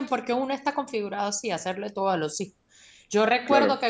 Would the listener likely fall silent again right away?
Yes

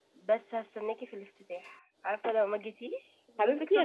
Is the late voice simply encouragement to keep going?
No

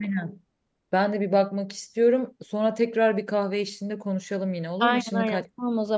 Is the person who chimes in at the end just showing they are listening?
No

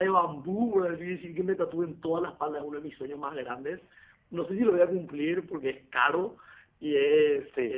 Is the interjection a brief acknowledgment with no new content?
Yes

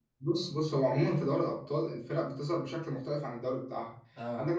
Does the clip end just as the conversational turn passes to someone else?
No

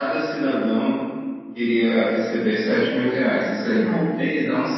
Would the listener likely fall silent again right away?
Yes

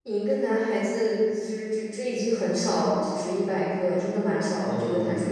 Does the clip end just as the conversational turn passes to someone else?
Yes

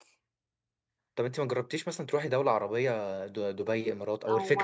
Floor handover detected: Yes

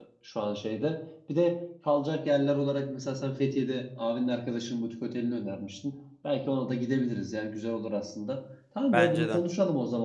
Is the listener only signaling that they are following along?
Yes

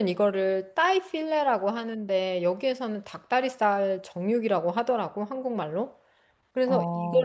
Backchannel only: Yes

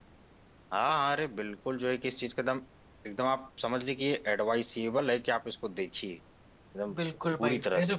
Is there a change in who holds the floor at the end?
Yes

